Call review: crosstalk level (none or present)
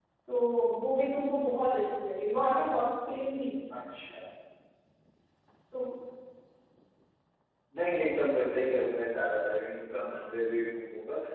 none